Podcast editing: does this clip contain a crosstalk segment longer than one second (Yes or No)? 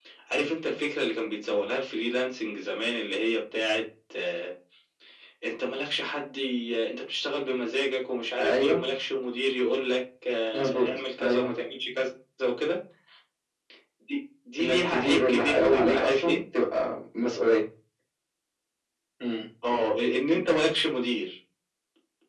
Yes